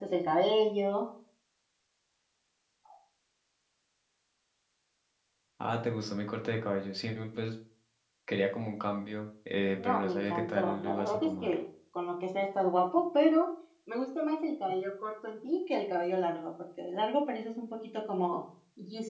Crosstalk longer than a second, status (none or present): present